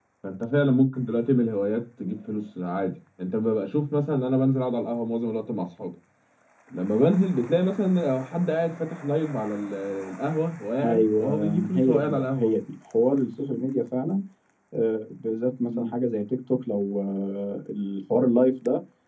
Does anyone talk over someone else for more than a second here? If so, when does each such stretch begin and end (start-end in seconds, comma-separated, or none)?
10.8-12.5